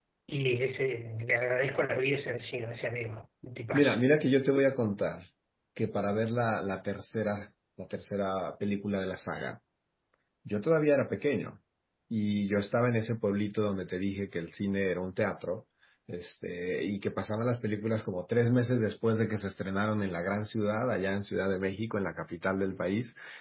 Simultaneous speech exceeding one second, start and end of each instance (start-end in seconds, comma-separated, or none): none